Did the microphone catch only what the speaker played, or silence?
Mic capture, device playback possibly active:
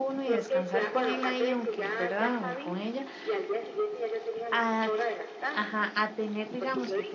No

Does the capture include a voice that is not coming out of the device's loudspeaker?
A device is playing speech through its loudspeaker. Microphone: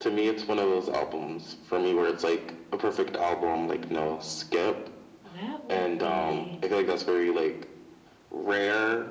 Yes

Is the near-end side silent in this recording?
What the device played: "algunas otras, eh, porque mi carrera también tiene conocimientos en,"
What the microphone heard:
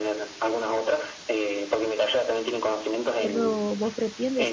No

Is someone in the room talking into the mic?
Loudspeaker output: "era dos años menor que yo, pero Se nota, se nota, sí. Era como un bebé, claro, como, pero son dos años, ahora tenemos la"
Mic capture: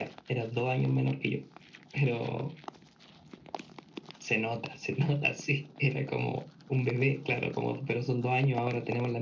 No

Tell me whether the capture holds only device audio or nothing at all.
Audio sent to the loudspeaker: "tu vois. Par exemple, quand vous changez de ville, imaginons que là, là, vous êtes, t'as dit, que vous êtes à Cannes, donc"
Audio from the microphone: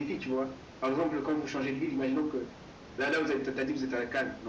Yes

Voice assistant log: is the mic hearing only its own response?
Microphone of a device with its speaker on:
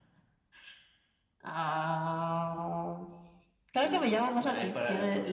No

